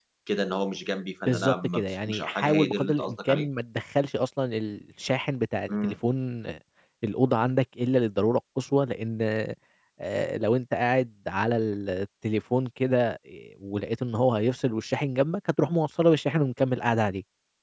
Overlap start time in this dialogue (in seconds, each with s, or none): 1.2 s